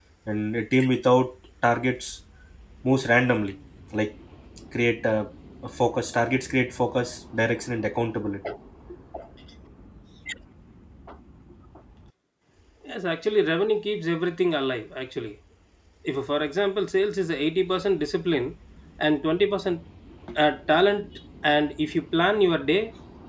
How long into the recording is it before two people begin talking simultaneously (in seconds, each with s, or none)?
none